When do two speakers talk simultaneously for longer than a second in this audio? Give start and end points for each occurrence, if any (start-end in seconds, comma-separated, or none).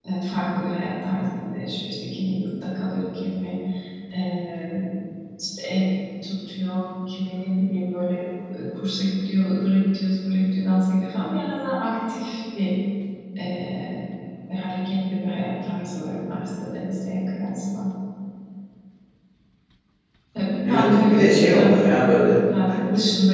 20.7-22.4